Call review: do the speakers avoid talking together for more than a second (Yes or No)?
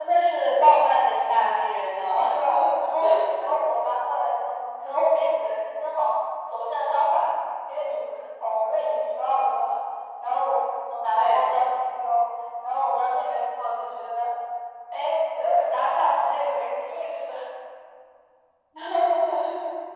Yes